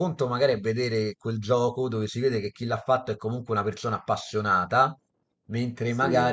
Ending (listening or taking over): listening